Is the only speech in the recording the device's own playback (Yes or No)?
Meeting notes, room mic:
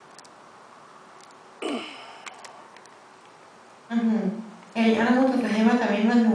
No